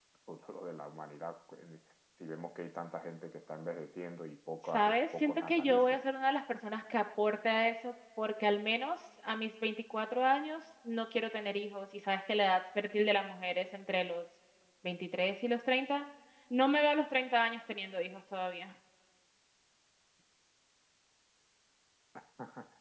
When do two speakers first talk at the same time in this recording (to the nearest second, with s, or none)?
5 s